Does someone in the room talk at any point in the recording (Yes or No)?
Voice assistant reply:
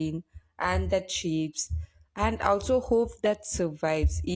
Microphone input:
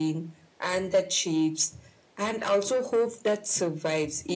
No